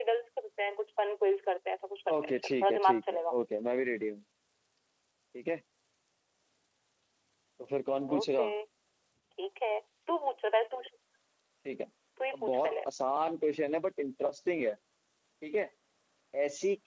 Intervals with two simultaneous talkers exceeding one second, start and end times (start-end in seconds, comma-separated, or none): 2.1-3.3